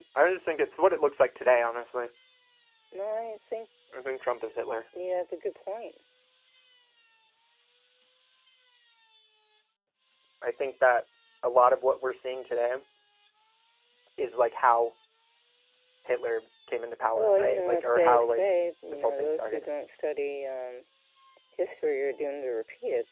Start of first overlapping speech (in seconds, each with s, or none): 17.2 s